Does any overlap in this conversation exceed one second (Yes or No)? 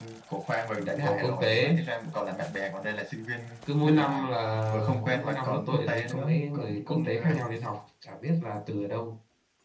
Yes